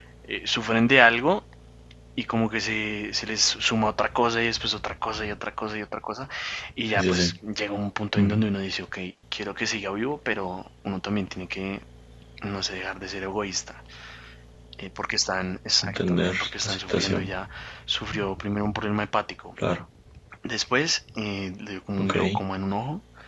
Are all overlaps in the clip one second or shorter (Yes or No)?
No